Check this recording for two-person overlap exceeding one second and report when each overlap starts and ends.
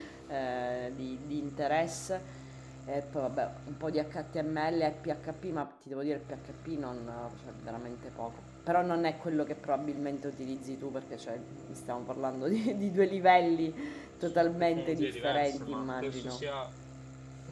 14.2-16.4

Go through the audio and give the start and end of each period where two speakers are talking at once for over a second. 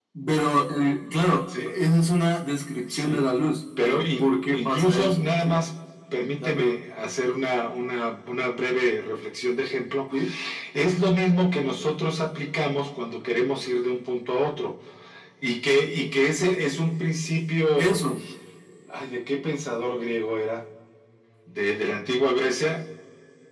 3.8-5.6

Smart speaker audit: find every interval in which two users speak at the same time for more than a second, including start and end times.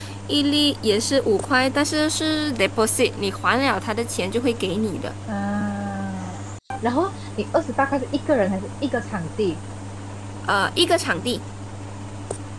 none

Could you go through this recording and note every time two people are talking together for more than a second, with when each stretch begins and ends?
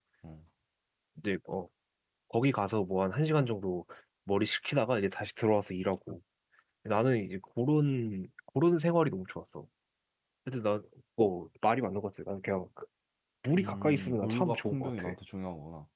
13.5-15.1

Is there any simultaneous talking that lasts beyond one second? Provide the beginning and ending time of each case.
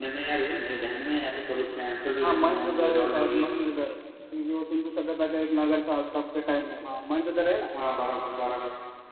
2.2-3.4

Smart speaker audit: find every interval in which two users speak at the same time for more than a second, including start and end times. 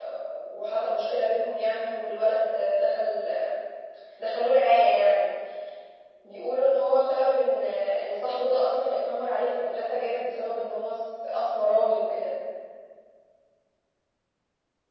none

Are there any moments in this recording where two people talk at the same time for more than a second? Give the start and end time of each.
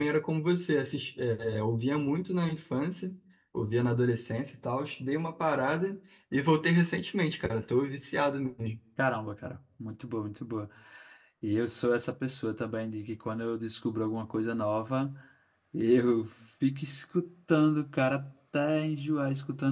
none

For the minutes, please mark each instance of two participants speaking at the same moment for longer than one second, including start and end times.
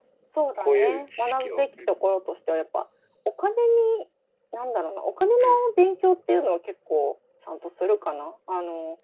0.6-1.9

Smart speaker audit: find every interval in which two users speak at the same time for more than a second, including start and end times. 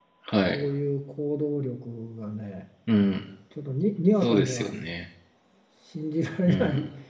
none

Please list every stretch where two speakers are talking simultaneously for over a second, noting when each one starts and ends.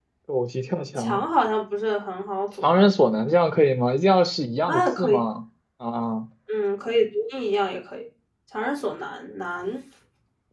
none

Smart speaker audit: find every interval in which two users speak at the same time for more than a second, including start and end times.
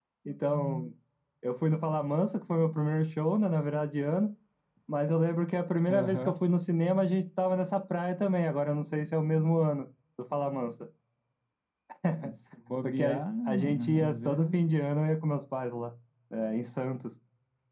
12.8-14.7

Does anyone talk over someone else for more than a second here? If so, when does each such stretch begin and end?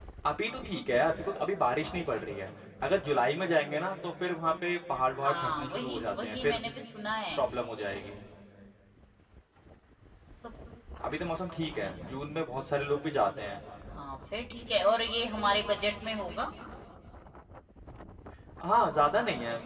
5.2-6.6

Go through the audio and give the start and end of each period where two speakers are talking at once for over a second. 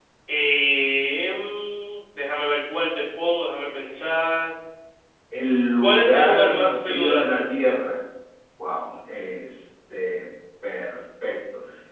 5.8-7.4

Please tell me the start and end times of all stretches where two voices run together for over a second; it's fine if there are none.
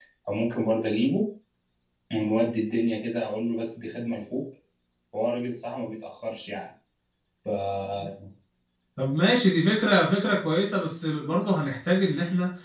none

